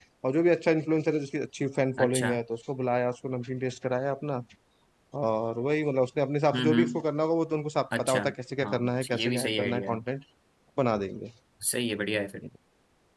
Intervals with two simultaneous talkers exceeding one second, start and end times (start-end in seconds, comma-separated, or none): 8.6-10.0